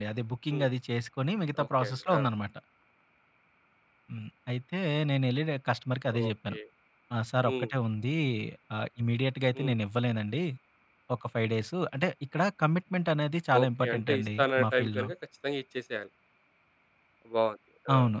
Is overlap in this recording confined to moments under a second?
No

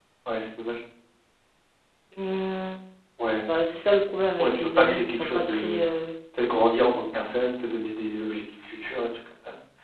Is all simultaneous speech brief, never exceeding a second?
No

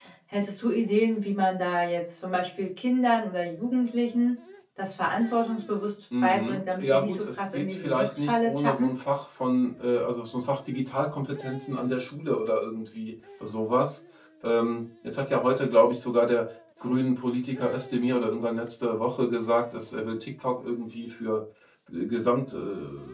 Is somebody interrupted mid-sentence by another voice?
Yes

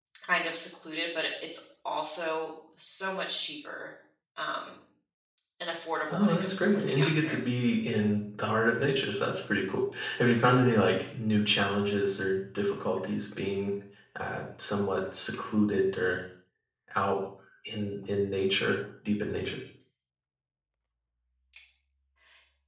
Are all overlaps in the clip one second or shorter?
No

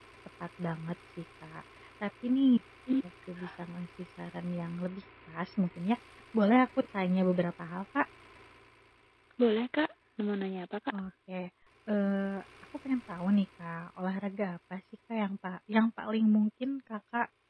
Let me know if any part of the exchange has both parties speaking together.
No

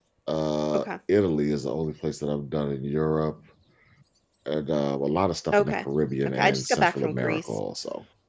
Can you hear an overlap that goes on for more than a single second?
Yes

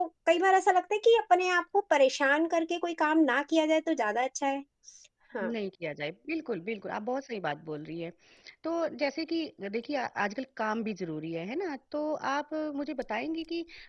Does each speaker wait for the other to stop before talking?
Yes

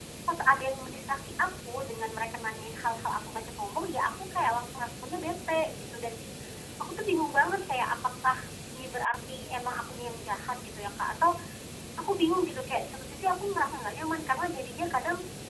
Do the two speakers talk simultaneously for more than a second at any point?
No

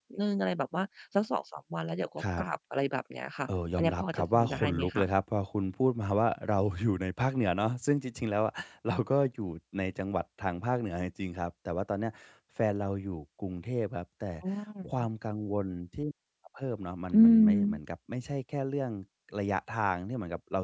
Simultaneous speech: Yes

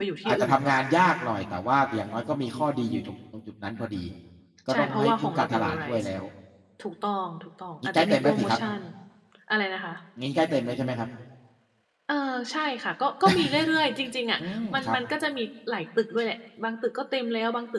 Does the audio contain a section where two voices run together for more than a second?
Yes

